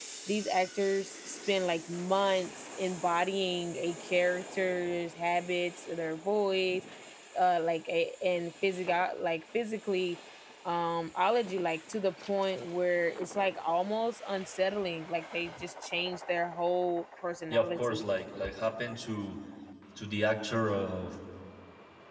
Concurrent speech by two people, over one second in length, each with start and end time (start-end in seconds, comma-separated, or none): none